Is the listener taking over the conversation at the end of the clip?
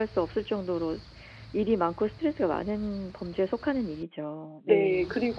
Yes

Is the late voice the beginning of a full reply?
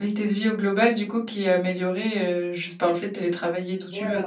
Yes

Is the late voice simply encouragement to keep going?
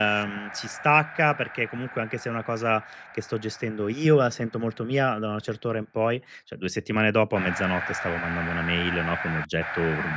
Yes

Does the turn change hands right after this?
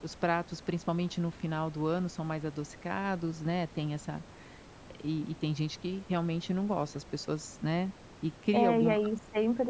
Yes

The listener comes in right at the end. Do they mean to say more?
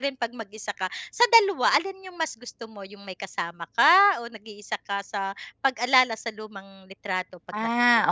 Yes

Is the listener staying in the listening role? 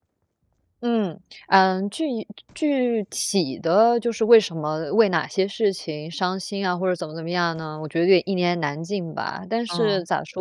Yes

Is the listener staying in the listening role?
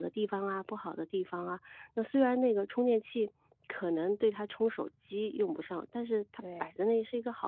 Yes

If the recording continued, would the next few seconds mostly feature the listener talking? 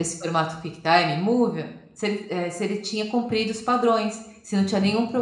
No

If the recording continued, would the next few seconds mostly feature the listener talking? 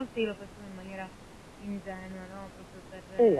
Yes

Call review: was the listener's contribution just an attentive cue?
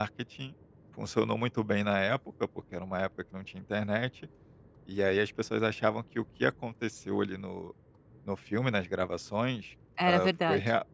Yes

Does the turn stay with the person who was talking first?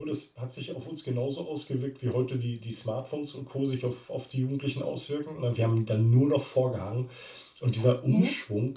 Yes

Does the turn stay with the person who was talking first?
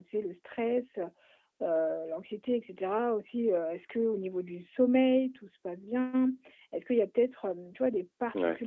Yes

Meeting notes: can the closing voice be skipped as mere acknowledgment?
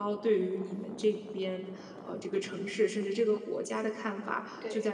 Yes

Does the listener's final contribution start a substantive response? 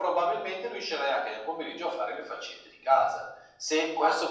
No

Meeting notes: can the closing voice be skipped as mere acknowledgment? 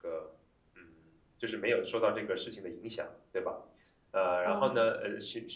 Yes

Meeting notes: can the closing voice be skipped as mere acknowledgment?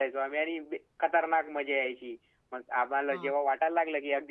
Yes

